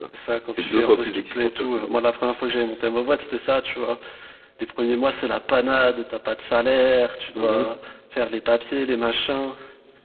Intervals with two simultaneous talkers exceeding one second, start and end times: 0.5-2.0

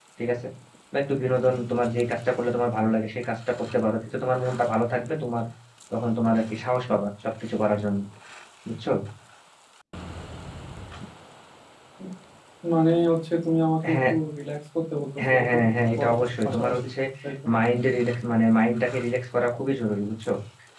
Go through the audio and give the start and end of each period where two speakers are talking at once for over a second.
15.3-16.7

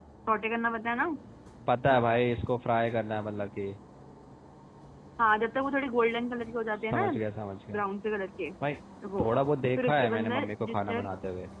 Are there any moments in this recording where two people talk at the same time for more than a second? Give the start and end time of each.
9.8-11.1

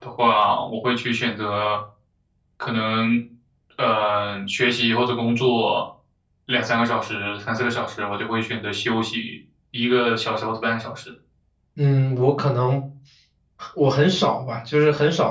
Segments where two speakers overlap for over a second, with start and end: none

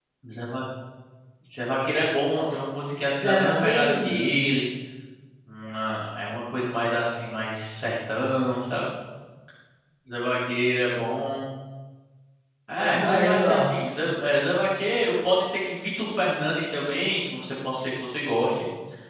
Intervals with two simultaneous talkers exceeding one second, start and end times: 3.1-4.4, 12.8-14.0

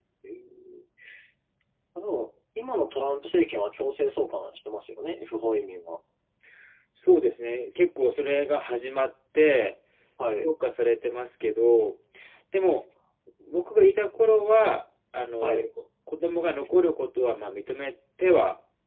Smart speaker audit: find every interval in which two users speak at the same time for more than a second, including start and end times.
none

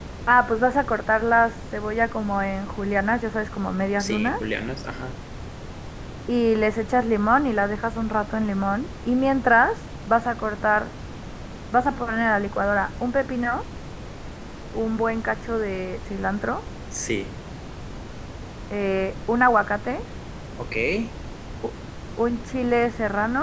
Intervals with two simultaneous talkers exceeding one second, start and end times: none

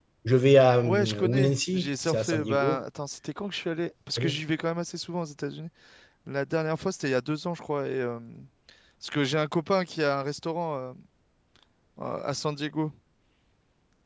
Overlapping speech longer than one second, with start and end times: 0.8-2.8

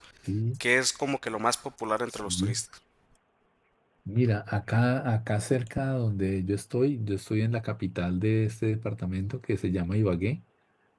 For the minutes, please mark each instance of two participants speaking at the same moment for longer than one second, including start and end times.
none

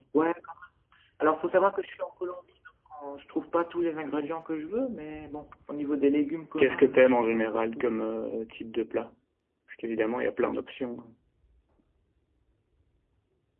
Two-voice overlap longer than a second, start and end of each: 6.6-7.9

